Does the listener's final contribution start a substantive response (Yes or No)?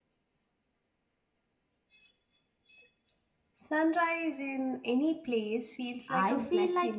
Yes